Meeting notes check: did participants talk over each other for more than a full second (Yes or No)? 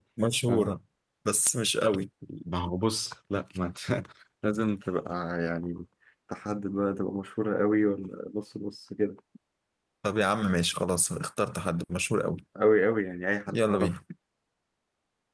No